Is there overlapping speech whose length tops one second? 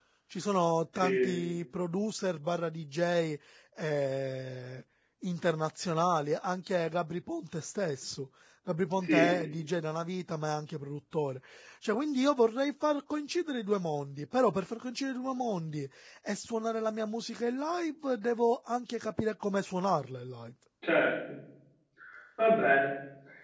No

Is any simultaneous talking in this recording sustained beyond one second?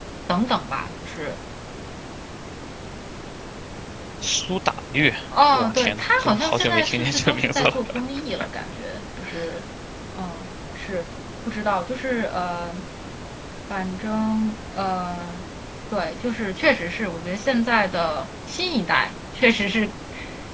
Yes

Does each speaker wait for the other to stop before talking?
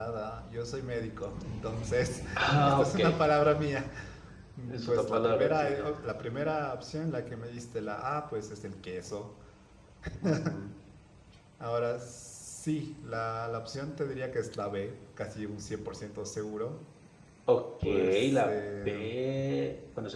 No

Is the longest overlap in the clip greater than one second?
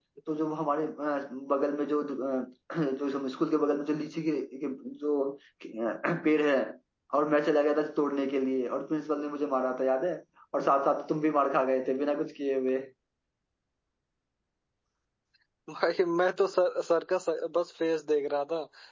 No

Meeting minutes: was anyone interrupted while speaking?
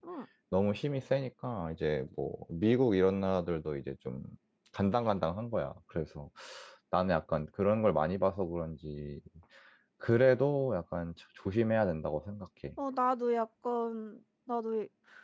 No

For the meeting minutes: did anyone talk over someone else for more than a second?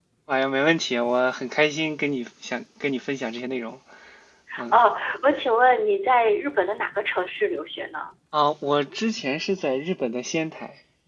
No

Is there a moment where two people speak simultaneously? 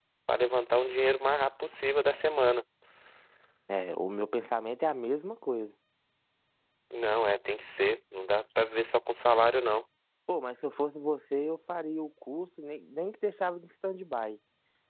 No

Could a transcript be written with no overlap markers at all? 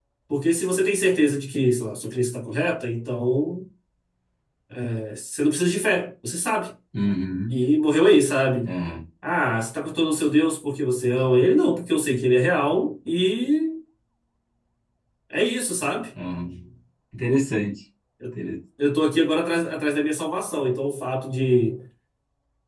Yes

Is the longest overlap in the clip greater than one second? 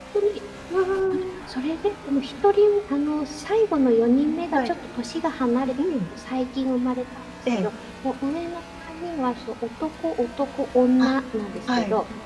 No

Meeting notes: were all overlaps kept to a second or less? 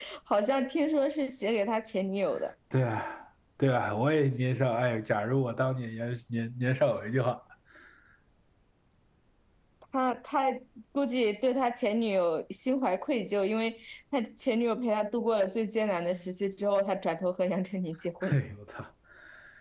Yes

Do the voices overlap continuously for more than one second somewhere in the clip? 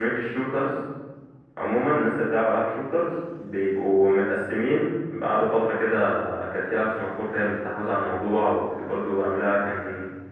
No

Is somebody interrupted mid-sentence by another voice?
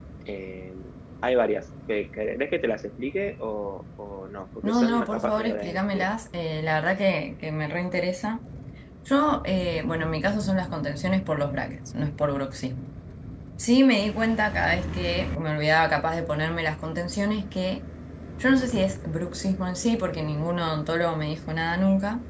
Yes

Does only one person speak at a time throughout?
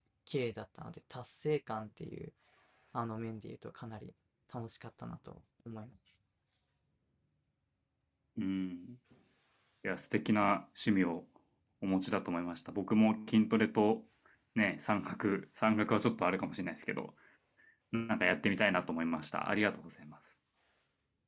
Yes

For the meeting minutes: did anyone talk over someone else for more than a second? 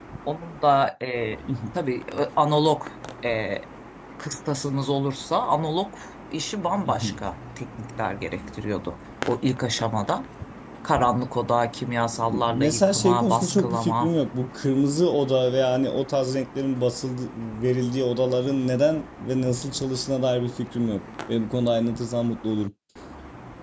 Yes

